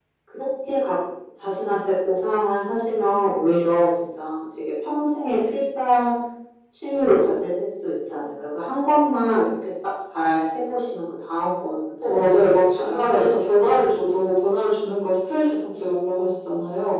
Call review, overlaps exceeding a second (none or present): present